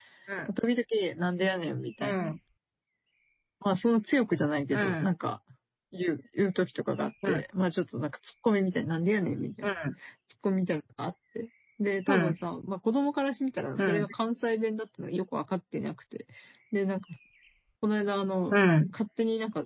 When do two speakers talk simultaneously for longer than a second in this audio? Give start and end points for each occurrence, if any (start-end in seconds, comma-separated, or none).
none